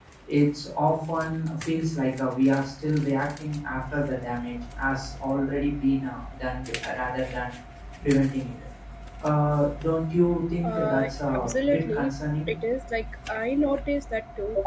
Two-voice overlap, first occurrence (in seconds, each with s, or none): 10.6 s